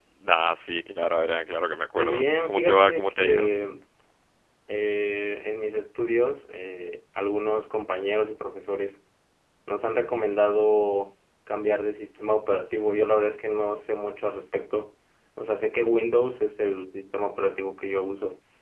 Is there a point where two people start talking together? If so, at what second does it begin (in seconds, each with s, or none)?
2.0 s